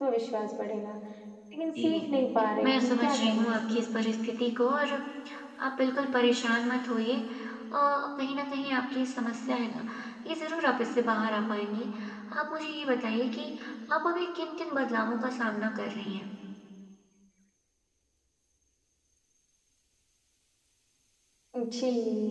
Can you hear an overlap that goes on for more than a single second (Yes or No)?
Yes